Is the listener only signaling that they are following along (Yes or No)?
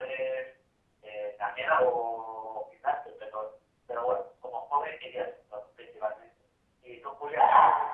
No